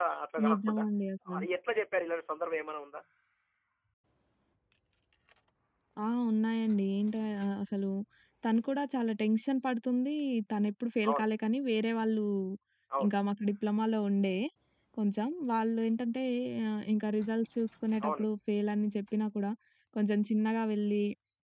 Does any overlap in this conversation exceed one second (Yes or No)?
No